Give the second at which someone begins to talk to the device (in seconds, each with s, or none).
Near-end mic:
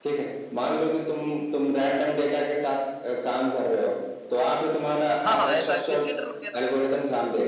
5.2 s